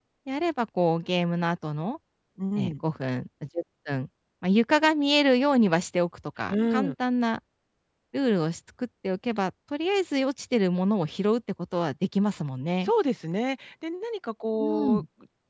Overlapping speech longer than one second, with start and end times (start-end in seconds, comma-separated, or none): none